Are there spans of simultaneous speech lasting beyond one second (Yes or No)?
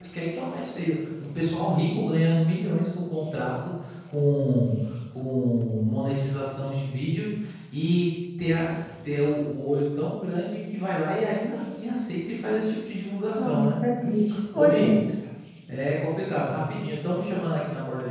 No